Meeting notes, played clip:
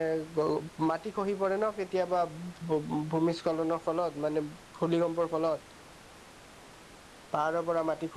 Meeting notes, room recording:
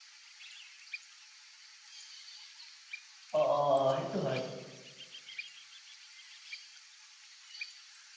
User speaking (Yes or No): Yes